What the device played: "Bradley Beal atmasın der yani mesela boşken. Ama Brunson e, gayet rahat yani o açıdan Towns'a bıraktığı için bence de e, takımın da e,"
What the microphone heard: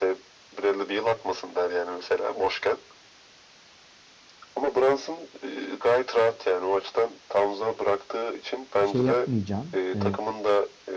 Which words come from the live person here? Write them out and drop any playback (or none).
şey yapmayacağın e,